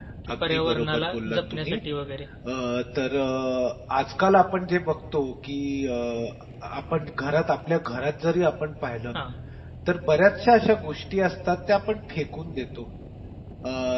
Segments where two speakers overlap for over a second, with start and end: 0.5-1.8

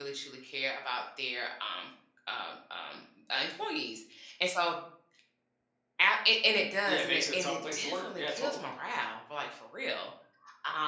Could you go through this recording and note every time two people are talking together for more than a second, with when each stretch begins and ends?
6.9-8.7

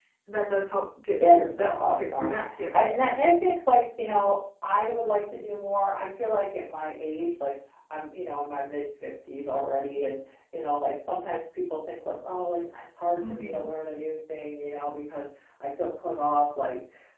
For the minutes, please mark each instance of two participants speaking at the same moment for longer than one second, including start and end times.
1.3-2.8

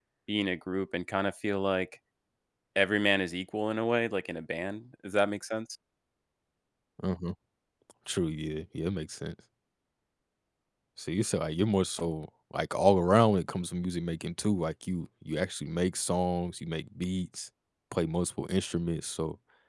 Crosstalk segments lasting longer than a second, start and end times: none

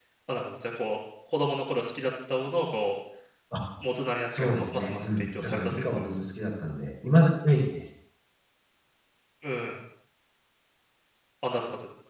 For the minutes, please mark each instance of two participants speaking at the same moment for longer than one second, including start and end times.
4.4-6.1

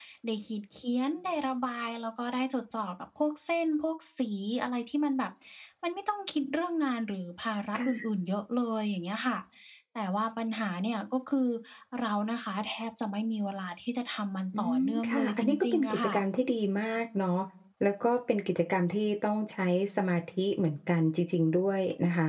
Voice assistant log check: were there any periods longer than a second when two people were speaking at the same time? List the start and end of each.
14.6-16.1

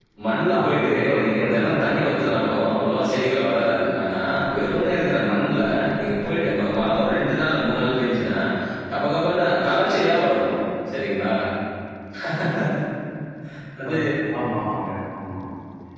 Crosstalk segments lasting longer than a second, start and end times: 0.6-2.3

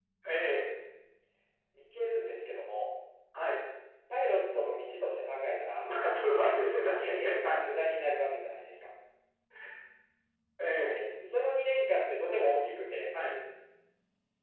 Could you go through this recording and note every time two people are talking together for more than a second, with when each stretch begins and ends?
none

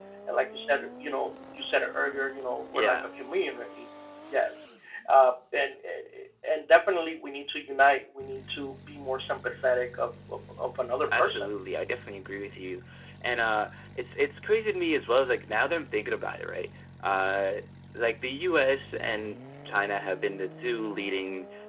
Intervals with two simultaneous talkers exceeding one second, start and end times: none

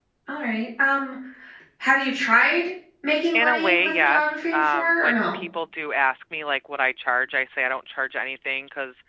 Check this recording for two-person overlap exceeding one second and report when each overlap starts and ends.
3.3-5.4

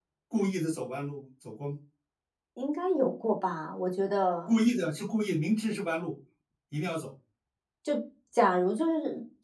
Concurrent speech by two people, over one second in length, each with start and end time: none

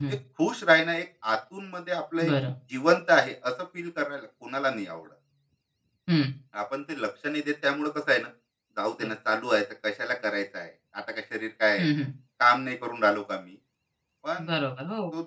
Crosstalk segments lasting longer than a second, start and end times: none

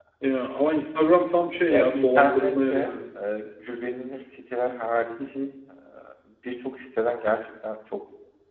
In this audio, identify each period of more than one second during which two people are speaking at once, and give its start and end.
1.7-2.9

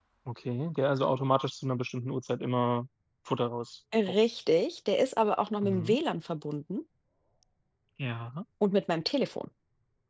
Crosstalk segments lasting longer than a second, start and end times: none

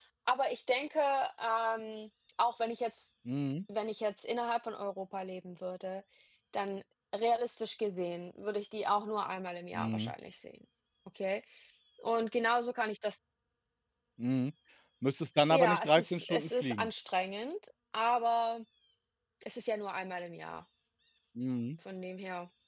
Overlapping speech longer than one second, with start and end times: 15.5-16.9

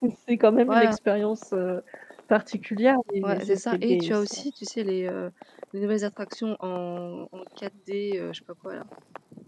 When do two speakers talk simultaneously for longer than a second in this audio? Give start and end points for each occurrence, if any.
3.2-4.4

